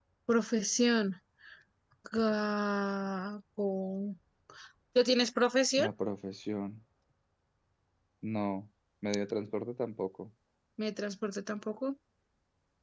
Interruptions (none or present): none